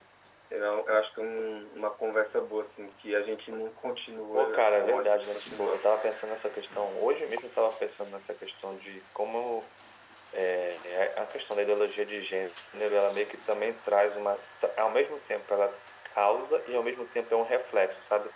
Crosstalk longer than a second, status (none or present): present